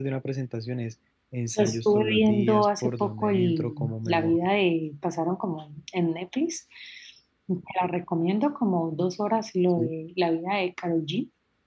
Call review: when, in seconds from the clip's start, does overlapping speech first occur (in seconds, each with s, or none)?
1.6 s